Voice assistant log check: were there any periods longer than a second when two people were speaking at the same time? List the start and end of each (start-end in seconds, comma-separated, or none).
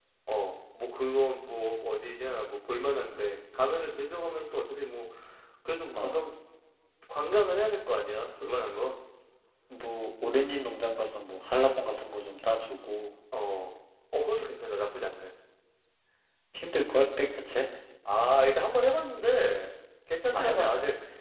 none